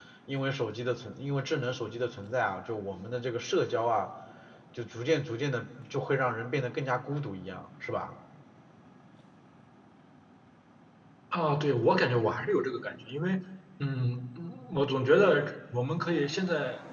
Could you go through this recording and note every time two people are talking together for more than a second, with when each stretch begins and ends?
none

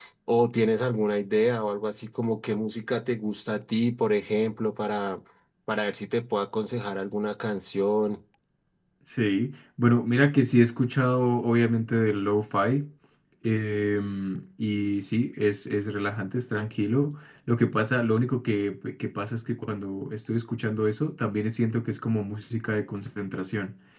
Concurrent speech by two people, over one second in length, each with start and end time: none

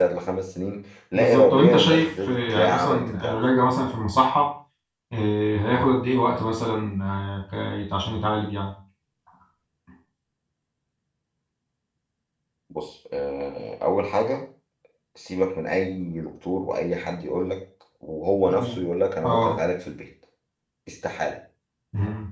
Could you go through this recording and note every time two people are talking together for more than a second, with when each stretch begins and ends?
1.1-3.4

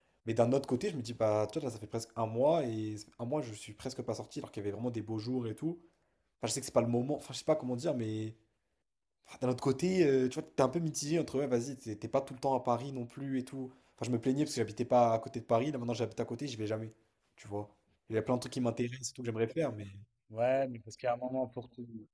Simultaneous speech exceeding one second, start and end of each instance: none

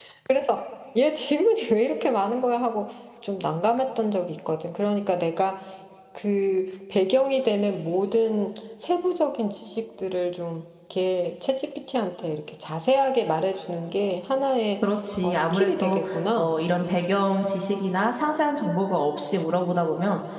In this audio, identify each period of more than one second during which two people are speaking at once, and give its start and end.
15.2-16.5

